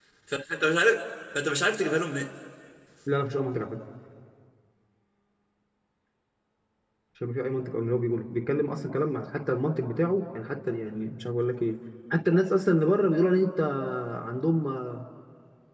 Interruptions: none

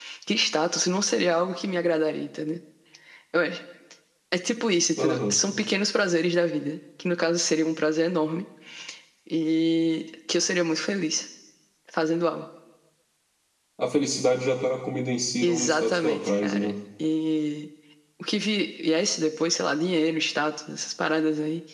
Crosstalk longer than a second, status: present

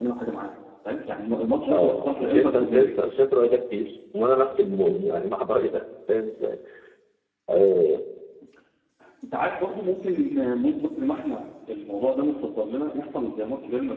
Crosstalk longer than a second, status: present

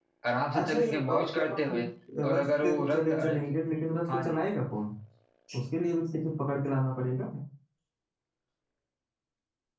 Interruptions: present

